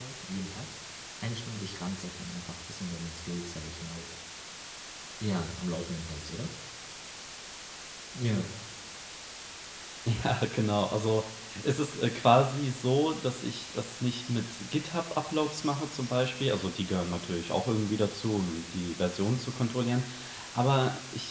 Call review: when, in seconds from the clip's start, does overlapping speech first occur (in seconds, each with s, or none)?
none